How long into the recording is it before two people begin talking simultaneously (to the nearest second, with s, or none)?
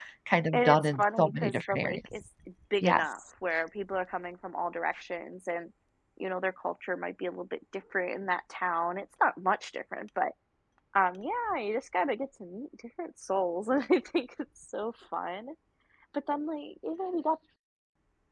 1 s